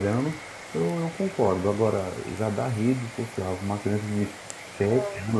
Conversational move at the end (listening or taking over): listening